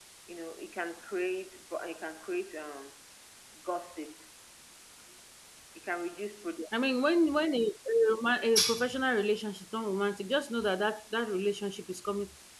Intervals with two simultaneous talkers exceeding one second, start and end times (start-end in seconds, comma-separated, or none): none